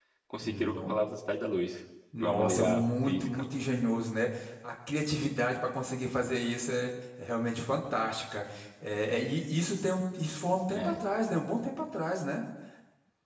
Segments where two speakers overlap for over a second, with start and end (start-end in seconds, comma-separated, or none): 2.2-3.4